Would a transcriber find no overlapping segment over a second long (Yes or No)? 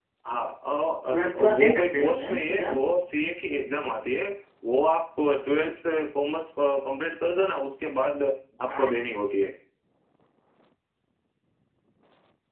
No